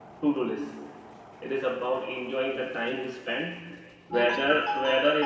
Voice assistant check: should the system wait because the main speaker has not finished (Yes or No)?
Yes